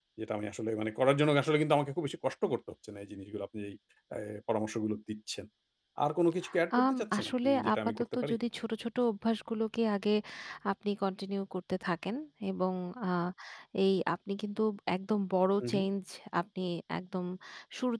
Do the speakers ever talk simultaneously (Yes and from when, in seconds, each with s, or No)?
Yes, from 6.7 s